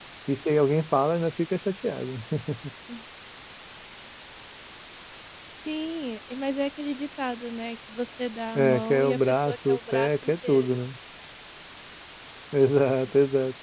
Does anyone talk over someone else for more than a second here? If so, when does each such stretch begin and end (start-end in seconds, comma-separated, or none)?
8.6-10.8